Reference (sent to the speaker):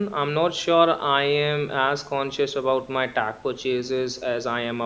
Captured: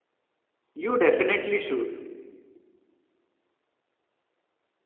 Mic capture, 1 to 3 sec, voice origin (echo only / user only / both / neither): user only